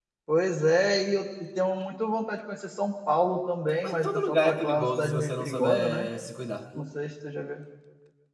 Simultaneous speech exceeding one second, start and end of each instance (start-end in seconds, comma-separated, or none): 3.8-6.1